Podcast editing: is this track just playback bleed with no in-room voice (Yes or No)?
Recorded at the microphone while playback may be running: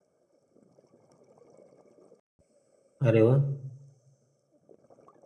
No